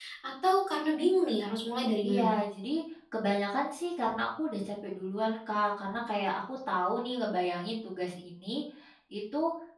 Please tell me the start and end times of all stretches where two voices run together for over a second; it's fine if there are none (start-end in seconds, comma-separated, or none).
none